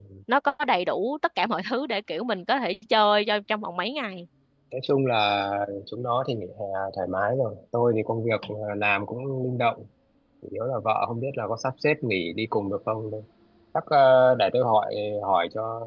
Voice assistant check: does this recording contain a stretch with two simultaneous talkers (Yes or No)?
No